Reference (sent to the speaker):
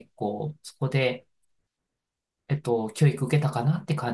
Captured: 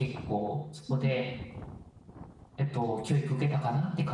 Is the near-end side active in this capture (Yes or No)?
Yes